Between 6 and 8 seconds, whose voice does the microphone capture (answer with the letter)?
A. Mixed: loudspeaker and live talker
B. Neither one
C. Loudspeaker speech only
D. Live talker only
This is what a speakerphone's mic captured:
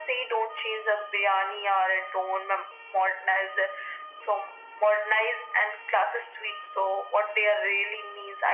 C